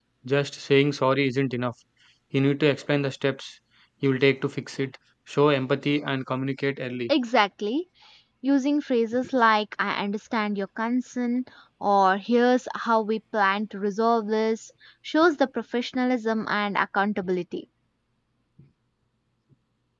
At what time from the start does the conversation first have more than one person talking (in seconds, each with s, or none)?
none